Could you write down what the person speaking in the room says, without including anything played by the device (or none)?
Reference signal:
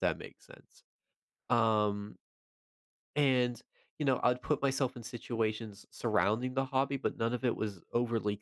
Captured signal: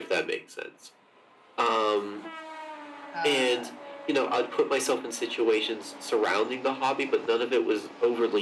uh,